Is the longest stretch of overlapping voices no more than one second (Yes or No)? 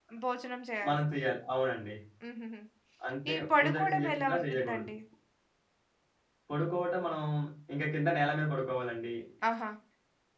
No